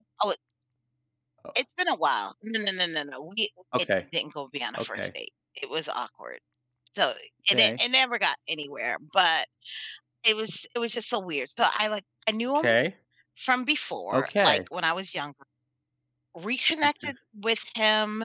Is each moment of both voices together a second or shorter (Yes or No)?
Yes